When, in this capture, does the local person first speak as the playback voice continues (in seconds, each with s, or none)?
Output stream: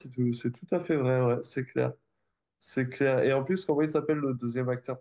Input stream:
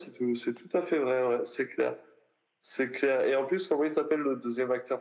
none